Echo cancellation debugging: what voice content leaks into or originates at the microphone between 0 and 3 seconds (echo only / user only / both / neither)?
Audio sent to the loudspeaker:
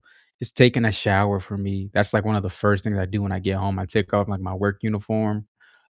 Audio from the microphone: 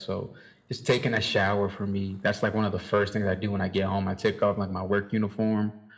echo only